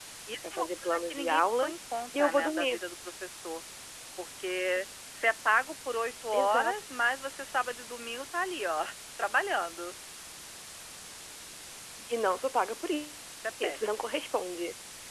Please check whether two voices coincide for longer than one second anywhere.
Yes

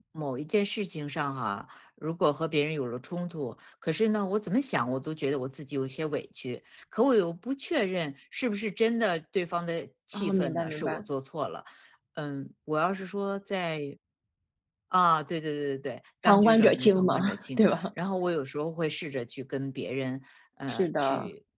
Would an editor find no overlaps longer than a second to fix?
No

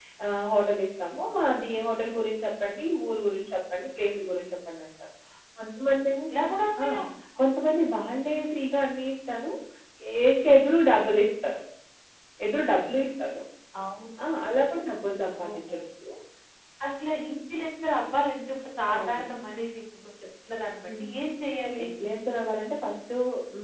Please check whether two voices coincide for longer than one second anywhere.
No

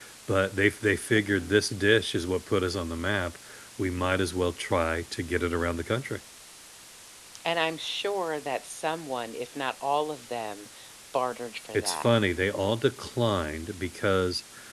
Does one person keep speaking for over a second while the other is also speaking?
No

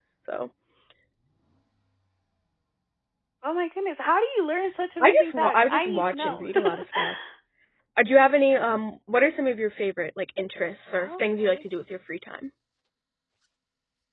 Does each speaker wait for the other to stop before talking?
No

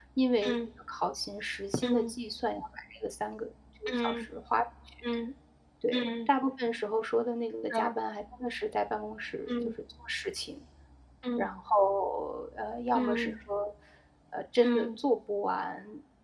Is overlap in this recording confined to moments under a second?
Yes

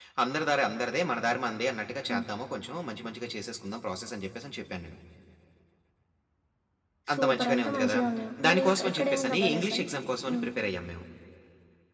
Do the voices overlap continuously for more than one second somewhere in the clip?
Yes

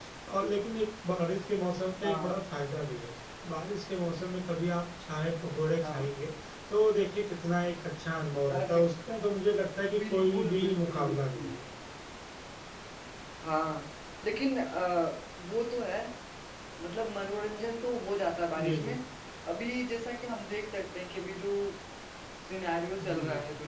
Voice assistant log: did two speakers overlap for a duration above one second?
Yes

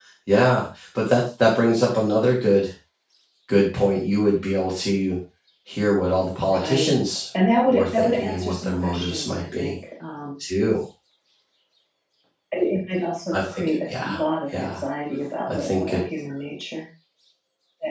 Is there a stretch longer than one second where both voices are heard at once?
Yes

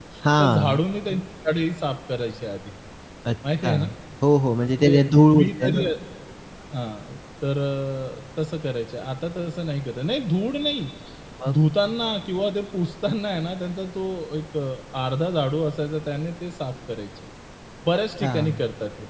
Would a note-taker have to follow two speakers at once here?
Yes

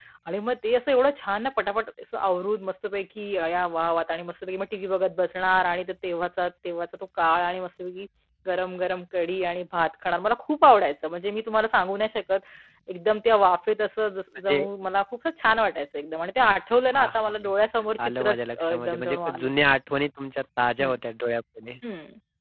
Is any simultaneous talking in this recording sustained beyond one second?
Yes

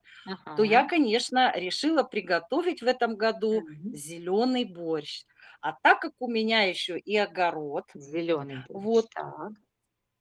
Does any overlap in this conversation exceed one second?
No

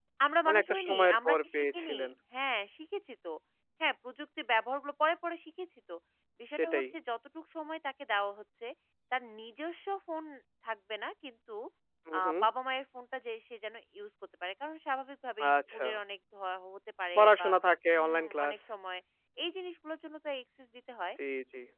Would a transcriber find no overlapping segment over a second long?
No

